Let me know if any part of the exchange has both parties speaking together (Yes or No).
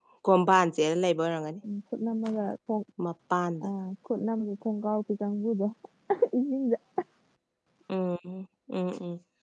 No